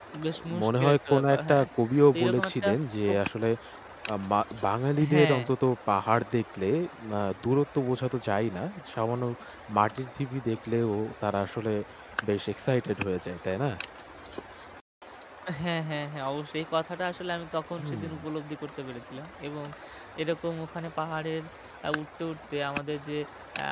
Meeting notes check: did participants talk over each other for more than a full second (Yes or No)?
Yes